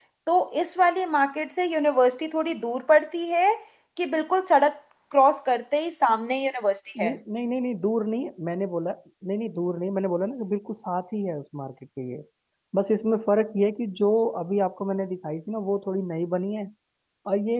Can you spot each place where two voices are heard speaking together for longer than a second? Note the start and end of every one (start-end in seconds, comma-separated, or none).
none